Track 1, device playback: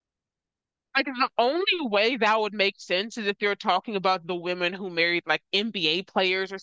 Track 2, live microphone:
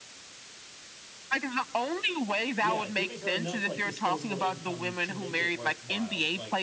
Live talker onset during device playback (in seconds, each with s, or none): 2.6 s